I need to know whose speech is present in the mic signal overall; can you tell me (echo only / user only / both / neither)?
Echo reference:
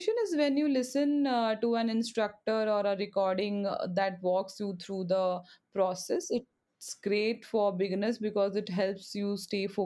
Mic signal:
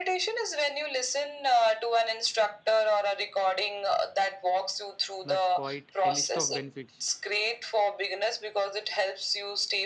both